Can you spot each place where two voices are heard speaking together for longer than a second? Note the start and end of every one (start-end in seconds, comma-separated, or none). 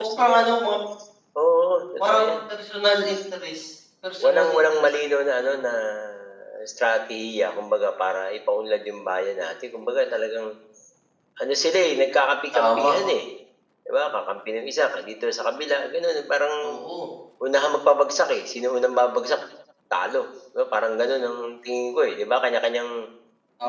4.2-5.6